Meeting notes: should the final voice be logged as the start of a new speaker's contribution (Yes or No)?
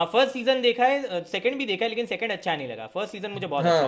Yes